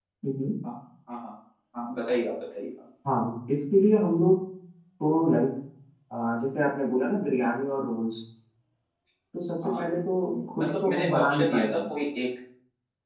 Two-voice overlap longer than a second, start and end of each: 10.6-11.8

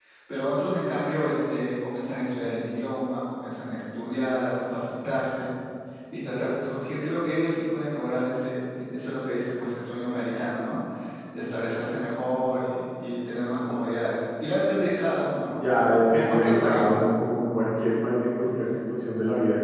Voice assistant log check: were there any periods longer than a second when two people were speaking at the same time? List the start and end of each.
15.6-17.0

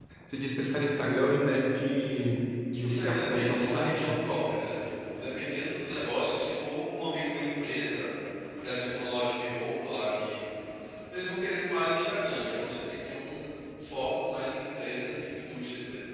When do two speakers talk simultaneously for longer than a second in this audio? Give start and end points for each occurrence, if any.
2.8-4.2

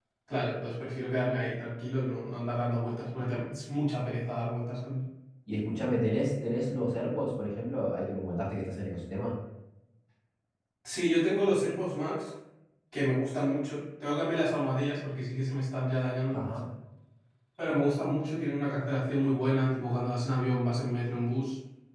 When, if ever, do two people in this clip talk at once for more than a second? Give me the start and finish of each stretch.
none

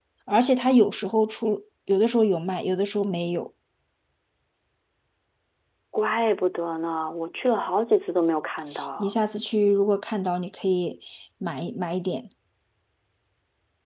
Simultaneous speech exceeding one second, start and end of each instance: none

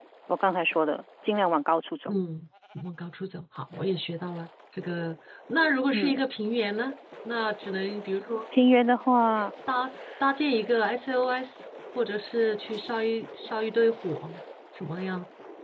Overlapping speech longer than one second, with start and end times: none

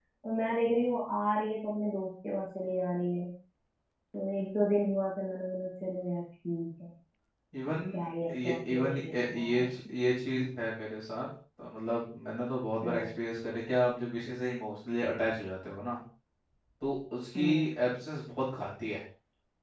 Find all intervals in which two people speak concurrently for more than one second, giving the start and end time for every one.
8.4-9.7

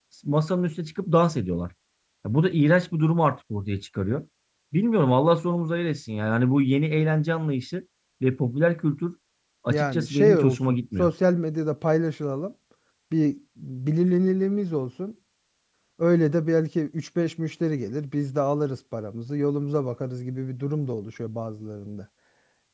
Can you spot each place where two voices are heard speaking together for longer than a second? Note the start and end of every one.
9.7-11.1

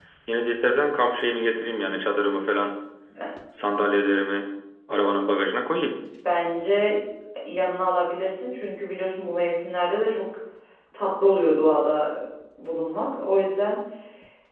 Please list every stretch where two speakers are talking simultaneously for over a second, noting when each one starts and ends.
none

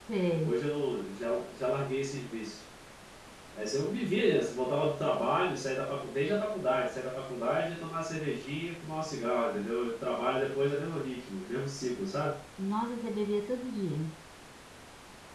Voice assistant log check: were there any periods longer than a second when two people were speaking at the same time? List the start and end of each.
none

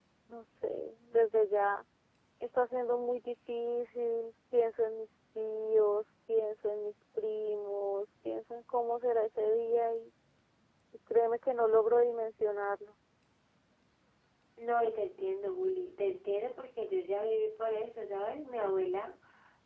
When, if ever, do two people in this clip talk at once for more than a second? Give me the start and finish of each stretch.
none

